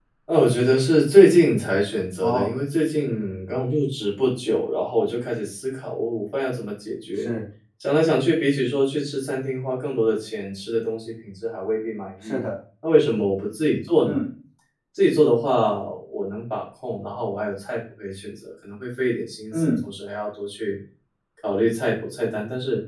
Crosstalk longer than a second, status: none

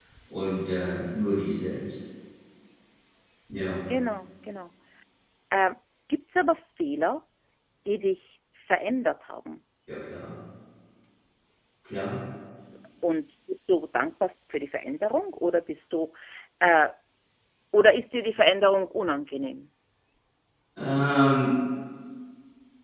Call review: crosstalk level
none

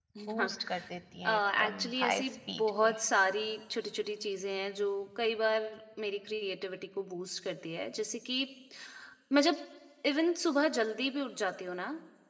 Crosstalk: present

